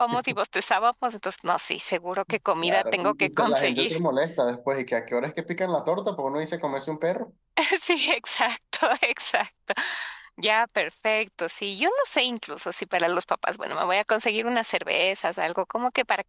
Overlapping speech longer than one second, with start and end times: 2.6-3.9

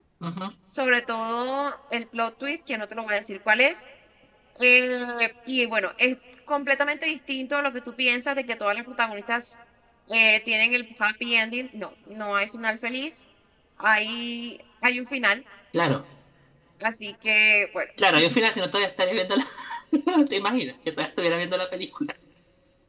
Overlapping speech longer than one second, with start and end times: none

